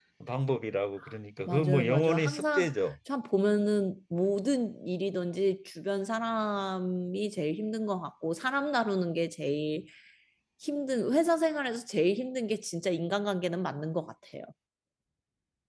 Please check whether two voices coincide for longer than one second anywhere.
Yes, from 1.5 s

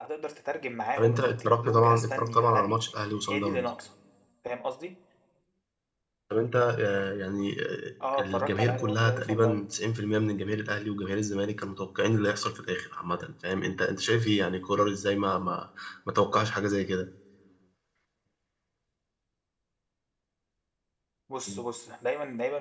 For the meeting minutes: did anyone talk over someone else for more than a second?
Yes, from 1.0 s

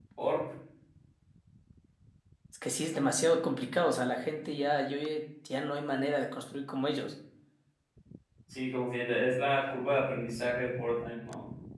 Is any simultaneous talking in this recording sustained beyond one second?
No

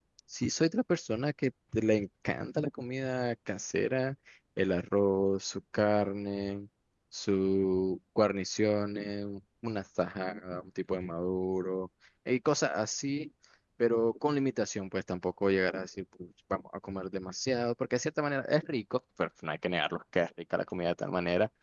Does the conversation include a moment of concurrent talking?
No

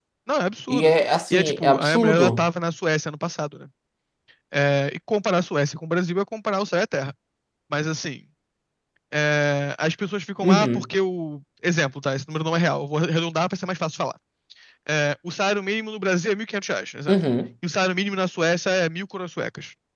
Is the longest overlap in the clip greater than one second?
Yes, from 0.7 s

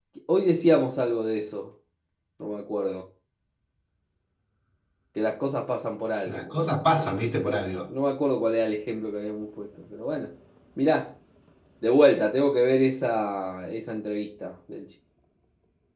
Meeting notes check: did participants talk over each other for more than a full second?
Yes, from 6.3 s

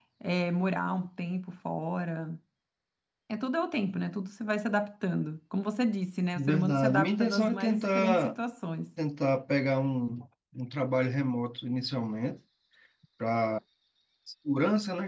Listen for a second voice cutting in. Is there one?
Yes, from 6.3 s

